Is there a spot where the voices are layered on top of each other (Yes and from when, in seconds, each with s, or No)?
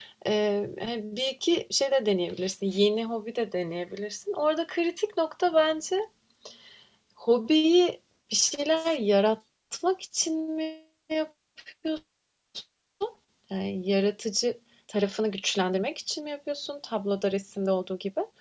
No